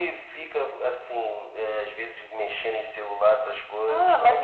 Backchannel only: No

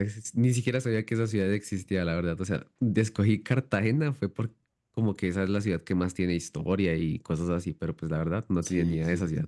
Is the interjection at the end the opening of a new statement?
Yes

